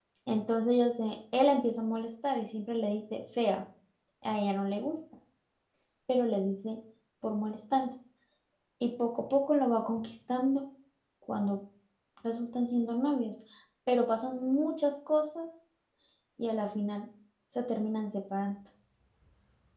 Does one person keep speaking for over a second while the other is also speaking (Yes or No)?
No